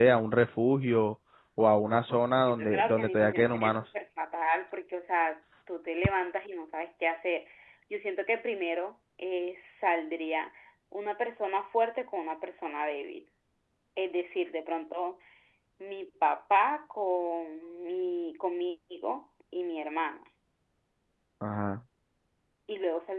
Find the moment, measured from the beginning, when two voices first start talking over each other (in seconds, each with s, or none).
2.2 s